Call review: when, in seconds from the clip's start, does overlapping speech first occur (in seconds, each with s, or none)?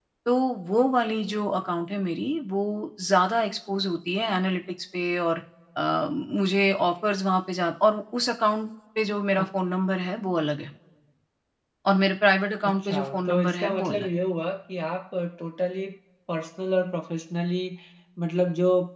12.8 s